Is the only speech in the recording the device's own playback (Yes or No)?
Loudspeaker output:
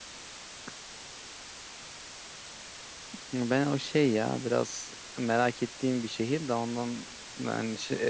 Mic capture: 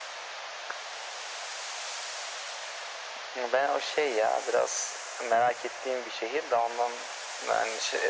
Yes